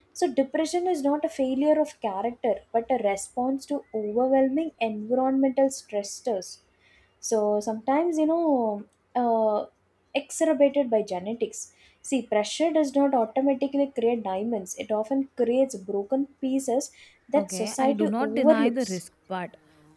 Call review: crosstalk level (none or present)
present